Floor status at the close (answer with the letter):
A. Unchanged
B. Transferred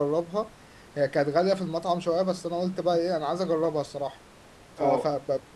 A